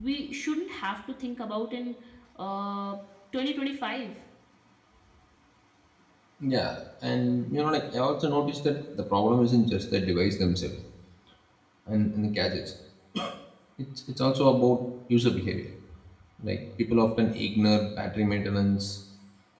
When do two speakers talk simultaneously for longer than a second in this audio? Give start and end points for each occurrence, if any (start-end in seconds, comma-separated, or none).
none